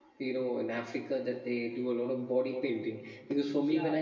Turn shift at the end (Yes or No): No